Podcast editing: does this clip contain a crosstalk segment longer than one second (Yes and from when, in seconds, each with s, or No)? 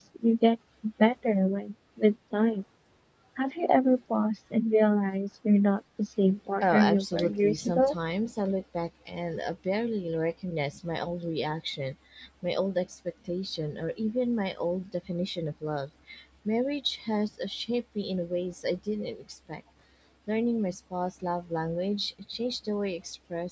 Yes, from 6.6 s